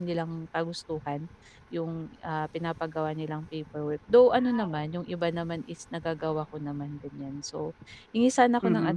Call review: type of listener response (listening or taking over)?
listening